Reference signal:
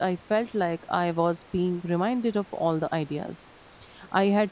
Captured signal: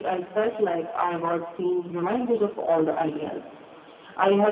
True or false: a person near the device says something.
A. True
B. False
B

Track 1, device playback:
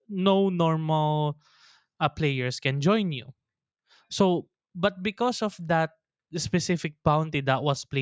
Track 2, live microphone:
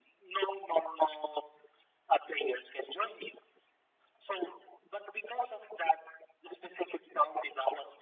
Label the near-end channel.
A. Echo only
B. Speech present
A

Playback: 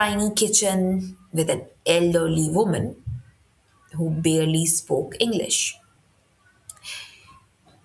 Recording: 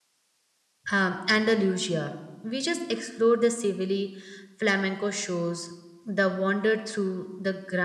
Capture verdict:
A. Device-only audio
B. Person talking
B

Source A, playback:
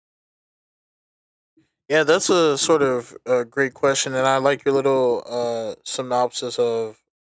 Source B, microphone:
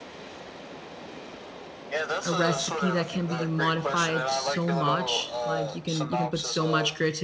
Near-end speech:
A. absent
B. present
B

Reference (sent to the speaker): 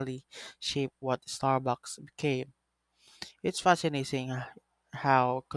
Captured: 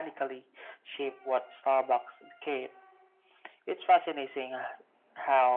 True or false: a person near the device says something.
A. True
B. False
B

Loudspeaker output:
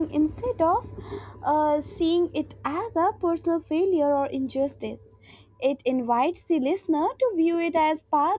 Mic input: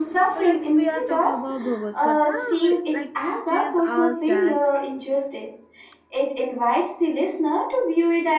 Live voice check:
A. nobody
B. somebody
B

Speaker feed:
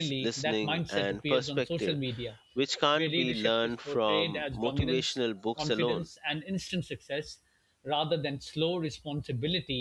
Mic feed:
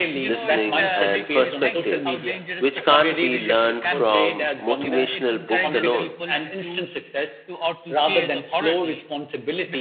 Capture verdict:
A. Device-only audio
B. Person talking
B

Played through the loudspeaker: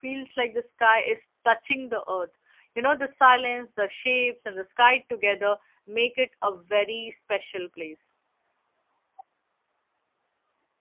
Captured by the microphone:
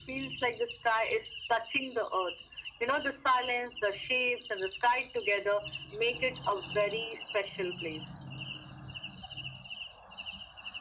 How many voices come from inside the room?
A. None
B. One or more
A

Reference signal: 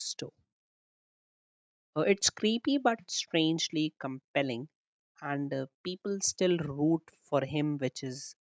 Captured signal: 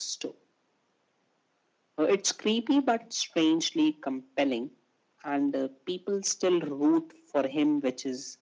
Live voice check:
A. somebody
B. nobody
B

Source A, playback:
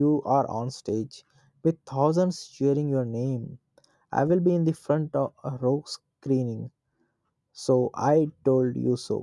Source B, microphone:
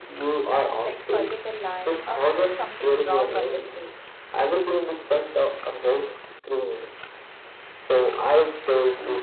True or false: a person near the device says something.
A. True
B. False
A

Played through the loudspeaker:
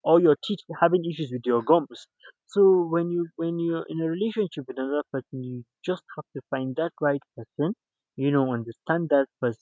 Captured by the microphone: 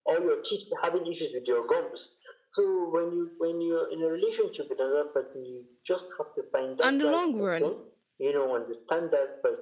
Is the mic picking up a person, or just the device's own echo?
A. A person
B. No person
A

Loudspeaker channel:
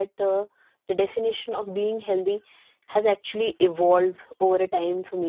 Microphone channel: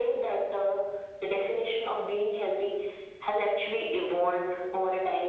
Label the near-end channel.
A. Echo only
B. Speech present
A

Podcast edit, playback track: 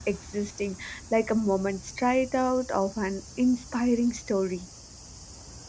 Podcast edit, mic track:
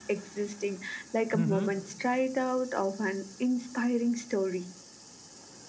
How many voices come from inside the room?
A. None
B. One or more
B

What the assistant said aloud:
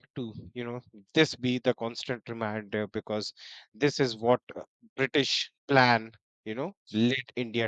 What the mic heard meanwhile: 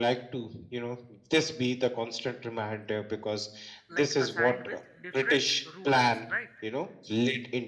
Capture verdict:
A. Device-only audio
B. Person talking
B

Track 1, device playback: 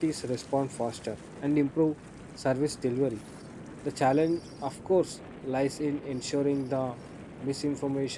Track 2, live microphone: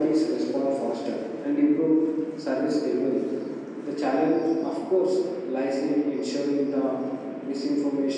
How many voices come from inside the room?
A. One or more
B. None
B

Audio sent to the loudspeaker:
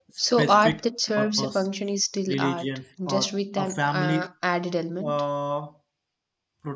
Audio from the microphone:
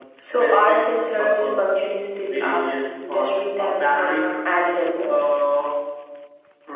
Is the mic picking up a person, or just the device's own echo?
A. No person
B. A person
A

